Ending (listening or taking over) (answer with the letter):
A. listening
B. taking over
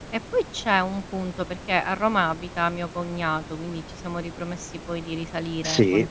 A